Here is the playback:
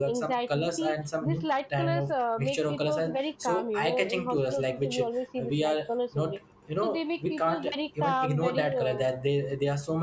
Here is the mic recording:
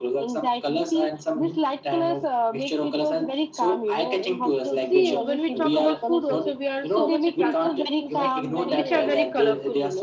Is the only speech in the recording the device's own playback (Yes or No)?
No